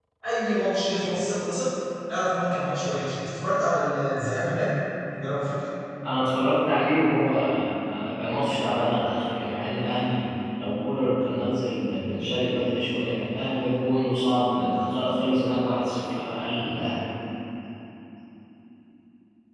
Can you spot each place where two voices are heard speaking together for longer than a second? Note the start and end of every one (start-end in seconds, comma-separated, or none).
none